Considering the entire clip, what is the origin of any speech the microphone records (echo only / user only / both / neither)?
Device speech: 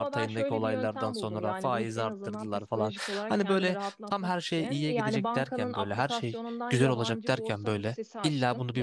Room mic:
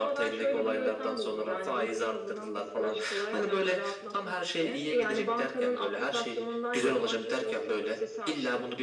echo only